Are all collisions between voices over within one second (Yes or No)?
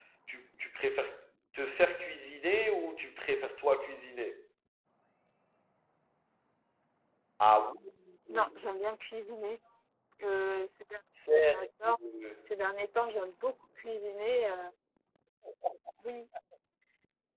Yes